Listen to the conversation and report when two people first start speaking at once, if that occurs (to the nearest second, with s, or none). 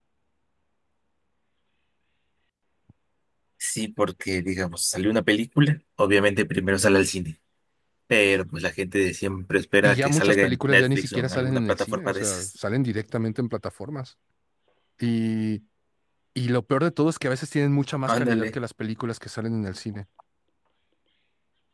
10 s